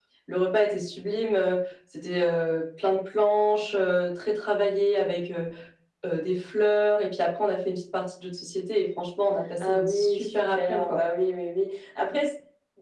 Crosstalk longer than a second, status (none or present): present